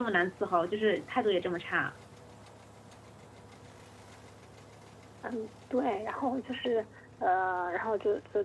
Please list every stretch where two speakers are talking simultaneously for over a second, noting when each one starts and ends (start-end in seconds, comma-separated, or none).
none